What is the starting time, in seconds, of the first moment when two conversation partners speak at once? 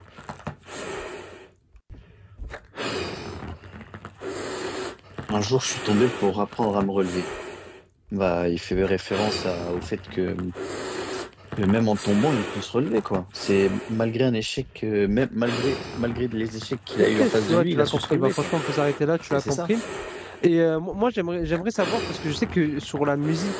17.0 s

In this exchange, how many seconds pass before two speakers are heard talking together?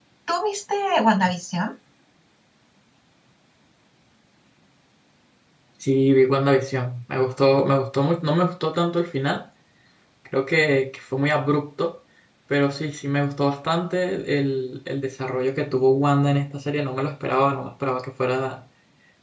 none

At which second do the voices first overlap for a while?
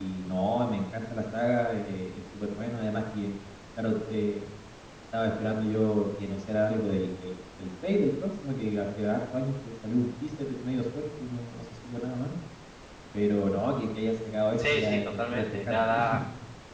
14.6 s

